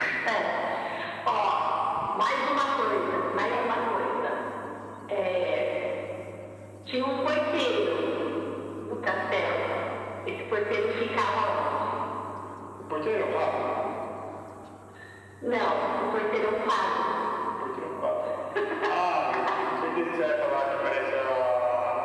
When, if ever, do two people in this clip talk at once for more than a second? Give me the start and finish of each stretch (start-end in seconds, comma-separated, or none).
none